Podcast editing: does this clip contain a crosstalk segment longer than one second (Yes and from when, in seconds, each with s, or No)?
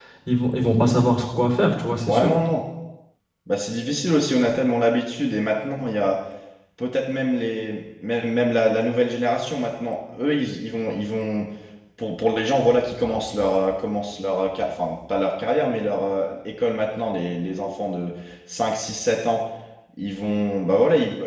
No